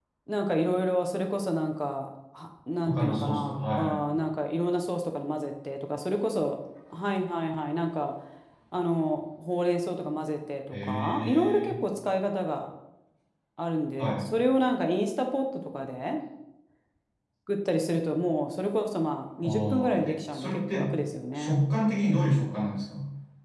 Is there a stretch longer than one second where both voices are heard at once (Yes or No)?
Yes